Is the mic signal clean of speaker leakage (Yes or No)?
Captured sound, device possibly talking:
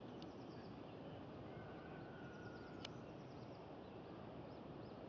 Yes